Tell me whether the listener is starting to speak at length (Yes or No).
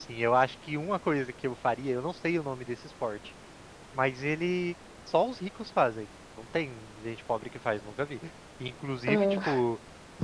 No